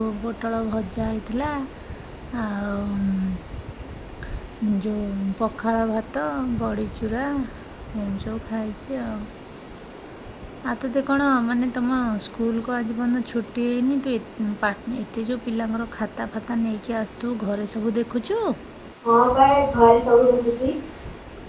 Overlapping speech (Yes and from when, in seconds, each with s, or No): No